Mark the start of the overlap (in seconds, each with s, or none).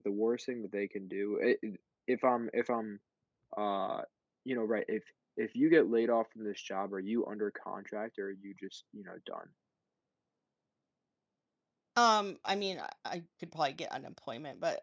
none